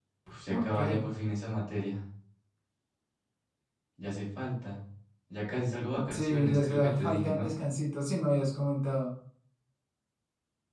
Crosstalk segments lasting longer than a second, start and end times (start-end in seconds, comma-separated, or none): 6.1-7.5